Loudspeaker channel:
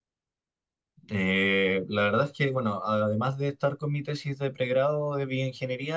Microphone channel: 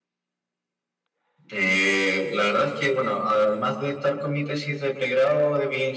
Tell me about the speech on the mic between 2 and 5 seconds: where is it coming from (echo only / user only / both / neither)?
echo only